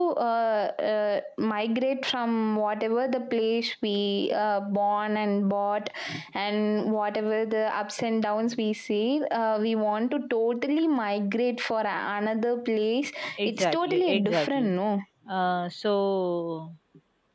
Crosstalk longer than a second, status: present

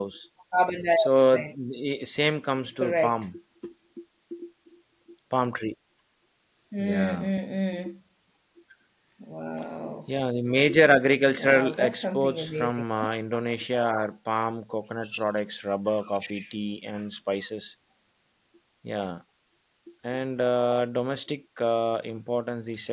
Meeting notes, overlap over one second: present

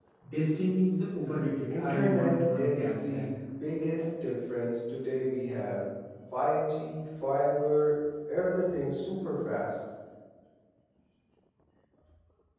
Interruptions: present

